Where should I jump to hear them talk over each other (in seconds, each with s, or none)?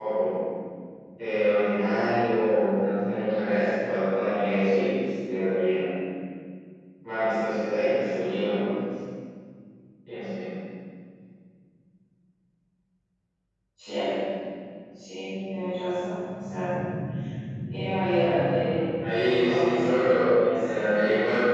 18.7 s